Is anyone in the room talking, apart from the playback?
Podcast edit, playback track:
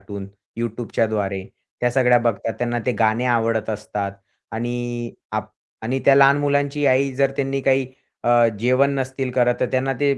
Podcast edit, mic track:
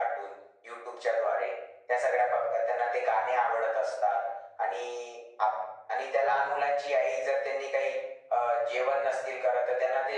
No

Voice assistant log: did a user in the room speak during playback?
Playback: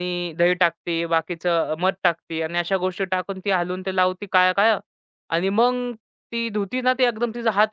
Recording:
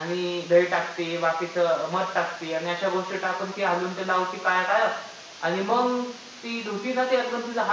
No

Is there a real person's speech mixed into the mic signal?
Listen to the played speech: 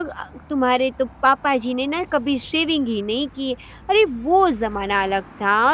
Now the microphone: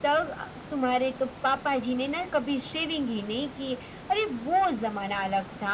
No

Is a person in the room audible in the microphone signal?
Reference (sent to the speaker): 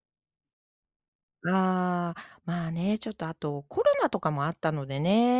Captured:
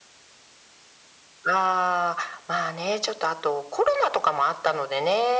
No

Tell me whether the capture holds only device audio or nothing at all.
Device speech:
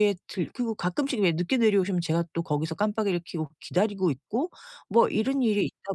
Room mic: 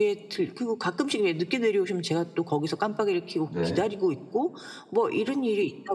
No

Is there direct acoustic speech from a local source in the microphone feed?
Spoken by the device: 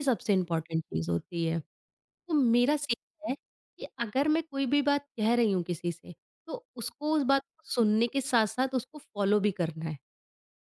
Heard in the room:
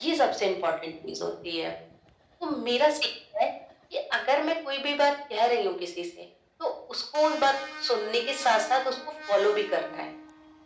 No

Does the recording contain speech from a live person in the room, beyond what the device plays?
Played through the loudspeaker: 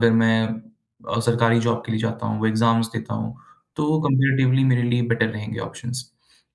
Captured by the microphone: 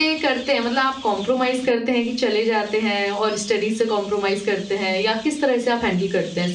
Yes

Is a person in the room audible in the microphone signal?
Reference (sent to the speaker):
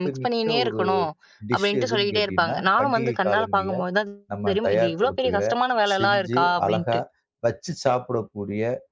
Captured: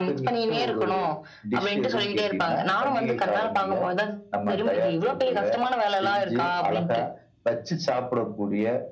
No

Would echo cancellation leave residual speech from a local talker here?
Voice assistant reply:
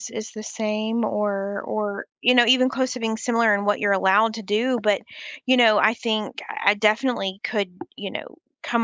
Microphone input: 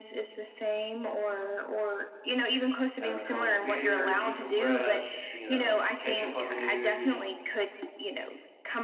Yes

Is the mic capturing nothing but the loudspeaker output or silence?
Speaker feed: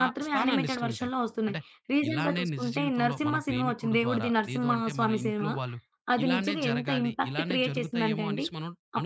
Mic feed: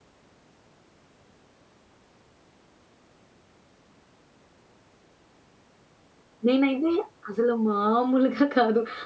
No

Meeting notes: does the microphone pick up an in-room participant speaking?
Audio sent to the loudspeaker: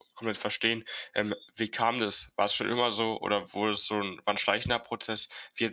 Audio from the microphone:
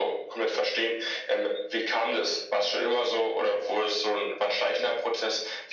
No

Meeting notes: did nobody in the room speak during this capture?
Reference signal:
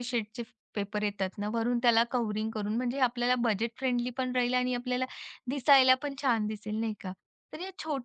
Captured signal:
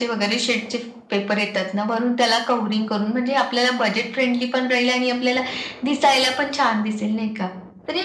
Yes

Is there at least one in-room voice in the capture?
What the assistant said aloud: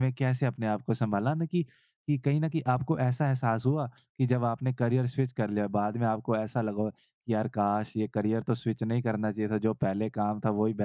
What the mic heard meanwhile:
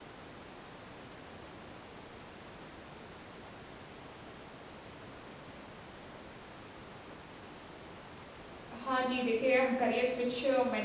Yes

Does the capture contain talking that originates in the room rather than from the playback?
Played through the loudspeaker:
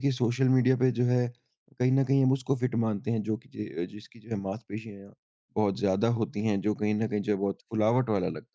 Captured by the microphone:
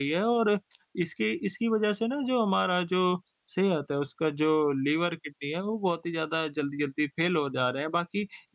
Yes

